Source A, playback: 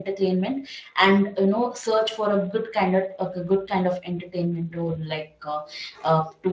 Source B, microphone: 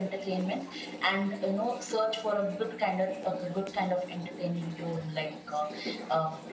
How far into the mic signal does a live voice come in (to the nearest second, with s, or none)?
none